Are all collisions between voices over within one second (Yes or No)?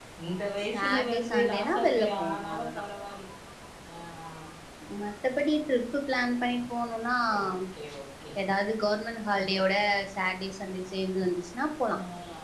No